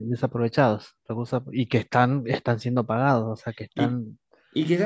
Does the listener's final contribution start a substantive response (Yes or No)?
Yes